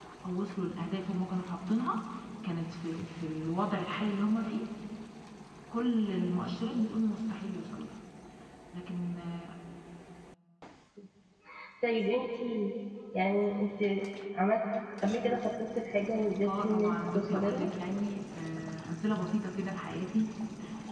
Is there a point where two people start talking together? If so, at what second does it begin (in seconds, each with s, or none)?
16.4 s